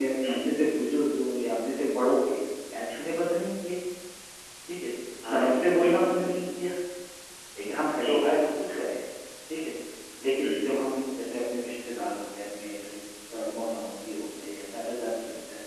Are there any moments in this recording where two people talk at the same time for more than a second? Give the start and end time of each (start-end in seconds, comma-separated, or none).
5.3-6.6